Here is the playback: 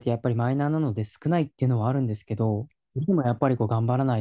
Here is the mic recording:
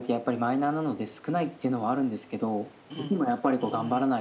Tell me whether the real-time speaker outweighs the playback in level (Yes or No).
No